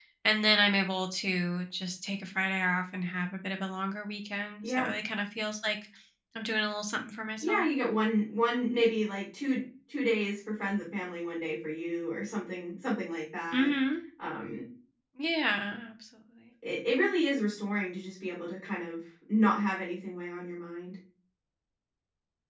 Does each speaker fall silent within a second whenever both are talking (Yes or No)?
Yes